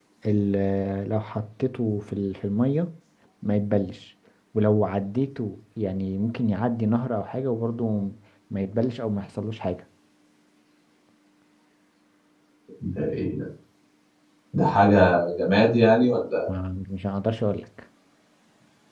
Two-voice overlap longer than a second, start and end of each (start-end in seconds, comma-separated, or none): none